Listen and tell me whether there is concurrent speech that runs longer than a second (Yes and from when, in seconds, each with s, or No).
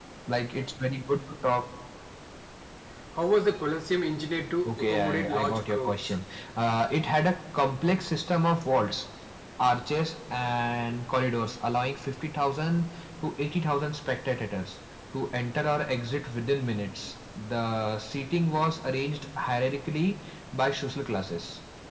Yes, from 4.6 s